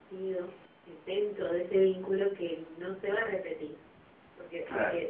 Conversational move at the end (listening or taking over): listening